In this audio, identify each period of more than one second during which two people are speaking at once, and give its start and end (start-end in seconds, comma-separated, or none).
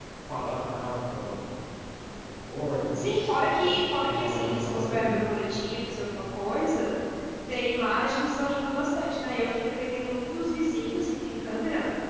3.0-5.1